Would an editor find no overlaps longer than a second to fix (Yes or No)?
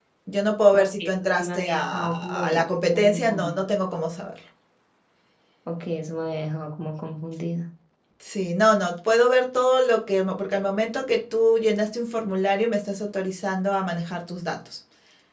No